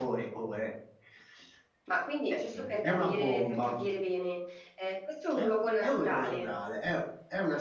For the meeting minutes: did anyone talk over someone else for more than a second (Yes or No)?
Yes